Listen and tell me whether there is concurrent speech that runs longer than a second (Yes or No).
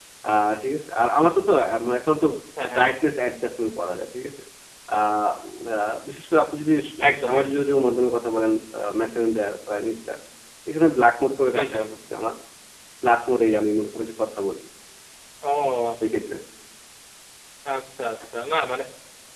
No